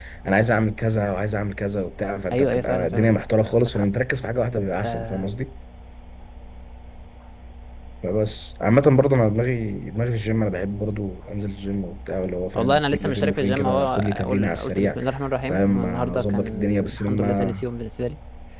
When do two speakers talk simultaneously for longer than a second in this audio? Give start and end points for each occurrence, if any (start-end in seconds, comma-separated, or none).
2.3-3.8, 12.5-15.0, 15.5-17.5